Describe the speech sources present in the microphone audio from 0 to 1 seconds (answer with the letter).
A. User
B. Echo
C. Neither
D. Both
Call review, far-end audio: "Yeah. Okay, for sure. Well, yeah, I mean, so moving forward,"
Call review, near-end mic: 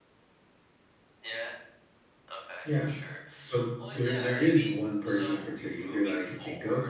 C